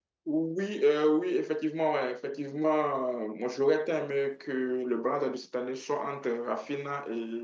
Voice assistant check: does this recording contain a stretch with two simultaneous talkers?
No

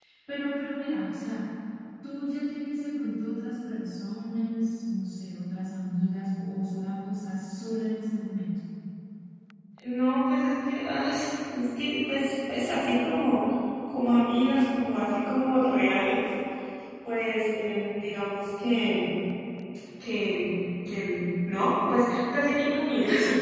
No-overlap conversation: Yes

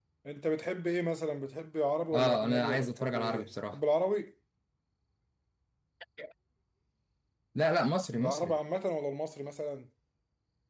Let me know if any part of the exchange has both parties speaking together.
Yes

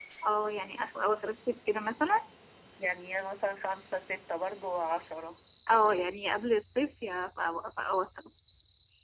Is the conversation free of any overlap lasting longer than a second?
Yes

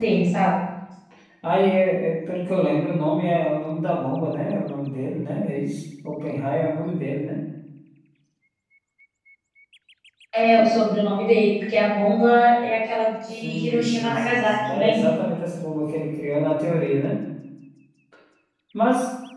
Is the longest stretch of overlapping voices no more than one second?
No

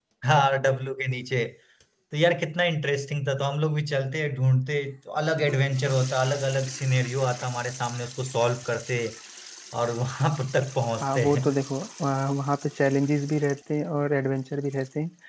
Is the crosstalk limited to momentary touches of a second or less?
Yes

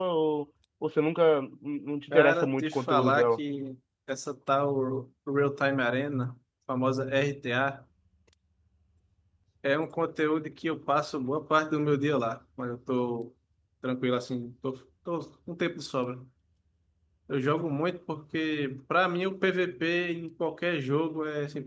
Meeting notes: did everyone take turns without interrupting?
No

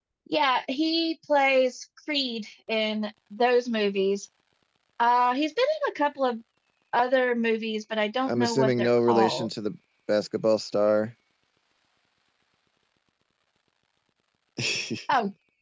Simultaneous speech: Yes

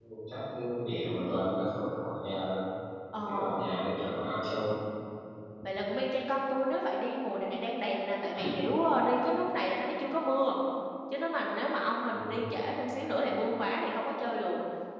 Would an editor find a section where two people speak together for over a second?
No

